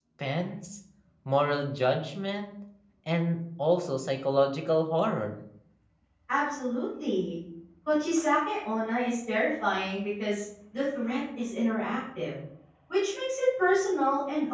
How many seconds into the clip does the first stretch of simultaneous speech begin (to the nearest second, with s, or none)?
none